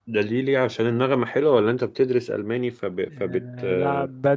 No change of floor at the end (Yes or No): No